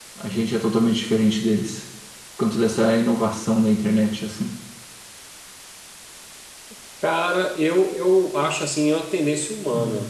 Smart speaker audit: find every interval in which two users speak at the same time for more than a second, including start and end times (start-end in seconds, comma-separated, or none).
none